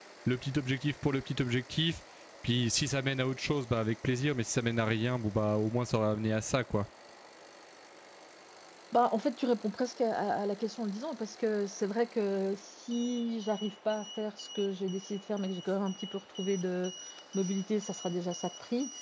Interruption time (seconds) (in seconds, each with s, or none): none